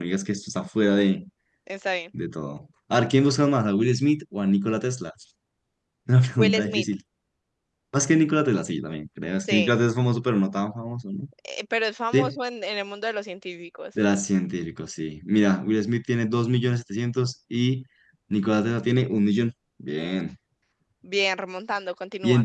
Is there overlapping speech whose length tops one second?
No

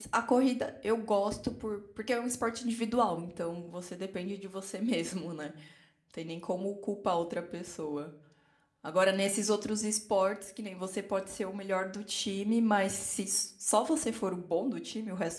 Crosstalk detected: No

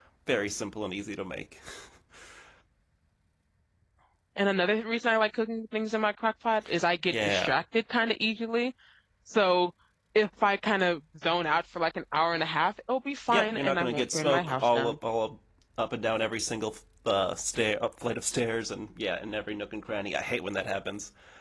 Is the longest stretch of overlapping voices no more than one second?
No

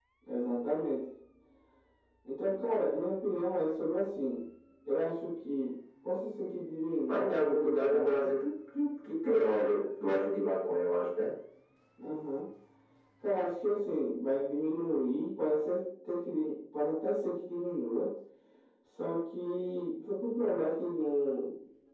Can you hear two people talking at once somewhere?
Yes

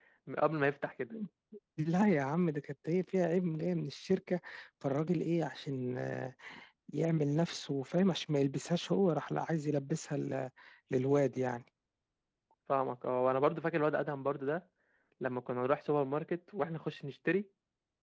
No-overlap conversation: Yes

